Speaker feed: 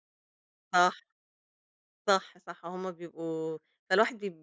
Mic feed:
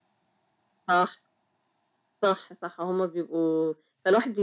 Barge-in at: none

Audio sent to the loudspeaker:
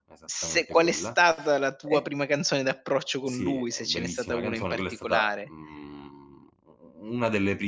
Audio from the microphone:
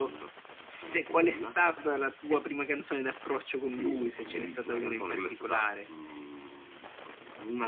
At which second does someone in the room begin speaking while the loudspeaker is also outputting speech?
none

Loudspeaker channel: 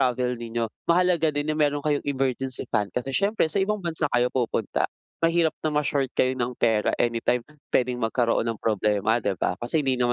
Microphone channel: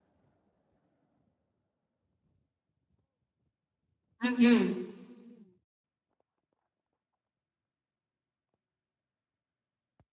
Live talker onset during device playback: 4.2 s

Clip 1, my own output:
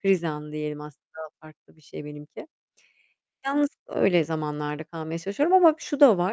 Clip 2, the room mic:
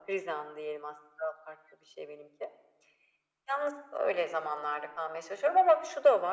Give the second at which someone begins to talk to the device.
none

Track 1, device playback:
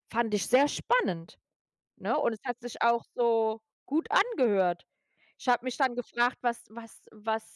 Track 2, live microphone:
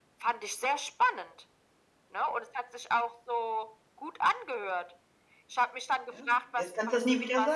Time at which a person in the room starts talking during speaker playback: 6.1 s

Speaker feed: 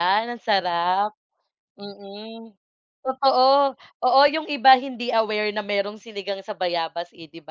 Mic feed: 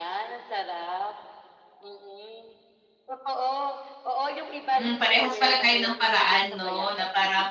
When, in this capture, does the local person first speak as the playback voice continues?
4.7 s

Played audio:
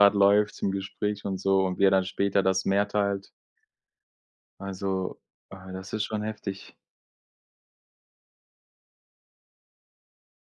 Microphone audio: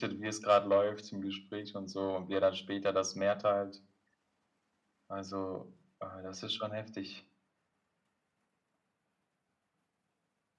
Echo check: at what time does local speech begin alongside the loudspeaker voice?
none

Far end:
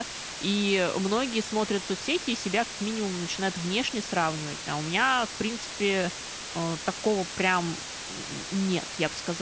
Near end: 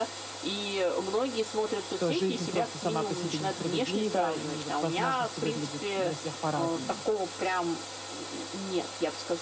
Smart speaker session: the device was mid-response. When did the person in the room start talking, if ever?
1.9 s

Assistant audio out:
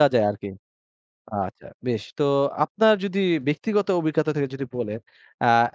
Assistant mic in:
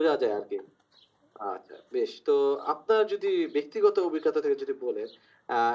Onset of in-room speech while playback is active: none

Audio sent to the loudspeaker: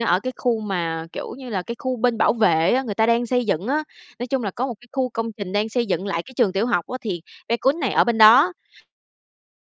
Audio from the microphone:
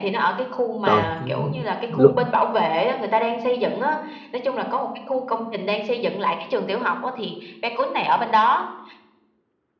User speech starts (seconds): 0.8 s

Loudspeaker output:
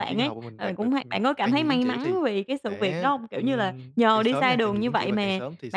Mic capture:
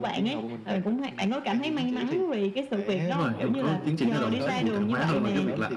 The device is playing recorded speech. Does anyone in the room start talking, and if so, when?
3.1 s

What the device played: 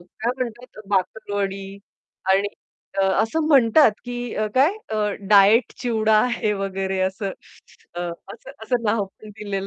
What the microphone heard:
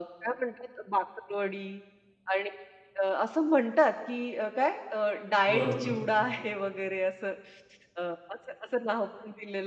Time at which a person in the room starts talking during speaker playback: 5.5 s

